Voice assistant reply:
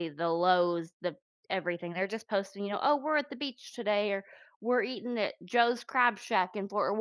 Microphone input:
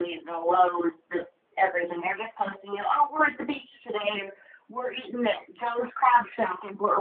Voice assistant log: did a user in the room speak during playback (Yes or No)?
No